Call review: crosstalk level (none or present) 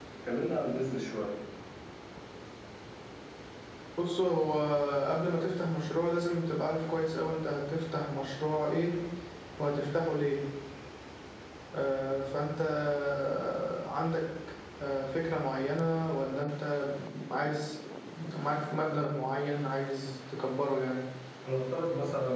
none